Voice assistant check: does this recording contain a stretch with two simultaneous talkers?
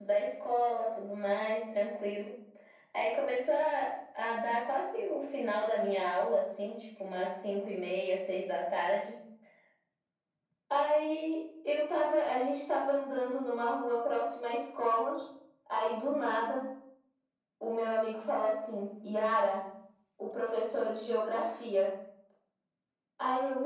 No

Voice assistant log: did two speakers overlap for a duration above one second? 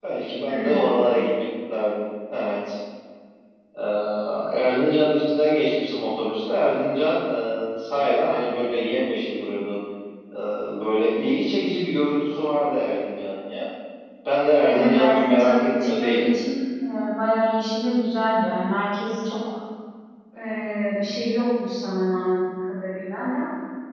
Yes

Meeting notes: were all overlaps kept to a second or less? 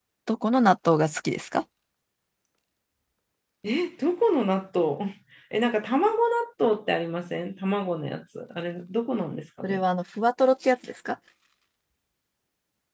Yes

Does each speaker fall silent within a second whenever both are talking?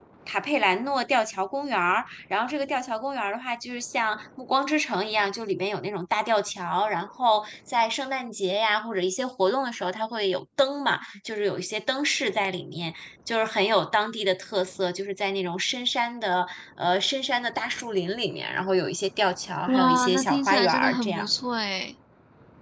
No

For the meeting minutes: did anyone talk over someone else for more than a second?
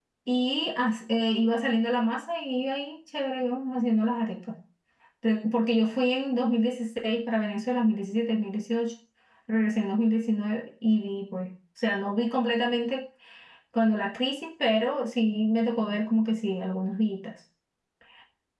No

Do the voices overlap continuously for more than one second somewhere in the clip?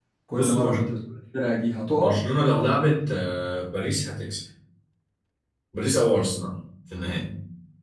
No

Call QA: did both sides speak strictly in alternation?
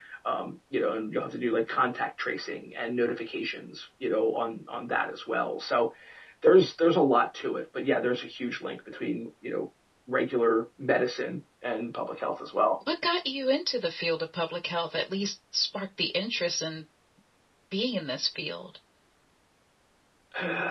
Yes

